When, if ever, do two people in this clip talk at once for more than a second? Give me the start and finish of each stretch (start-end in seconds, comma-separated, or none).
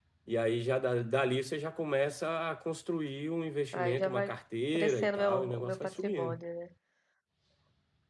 4.8-6.4